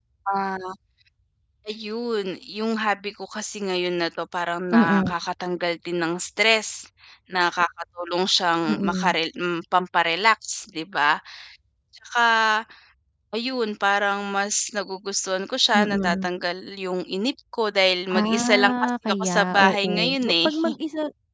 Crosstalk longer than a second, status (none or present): present